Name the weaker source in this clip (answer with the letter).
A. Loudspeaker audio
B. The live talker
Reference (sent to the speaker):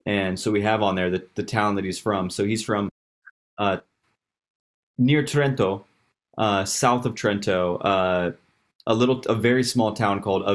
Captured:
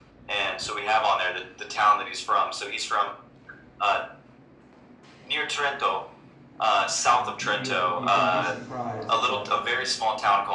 B